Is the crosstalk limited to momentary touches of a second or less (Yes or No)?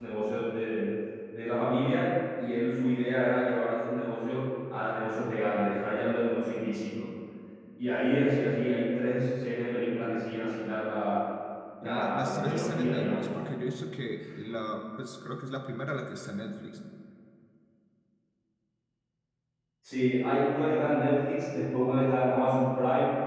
No